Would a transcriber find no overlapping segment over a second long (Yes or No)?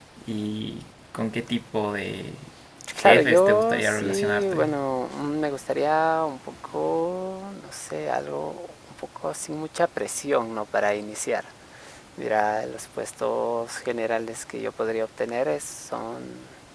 No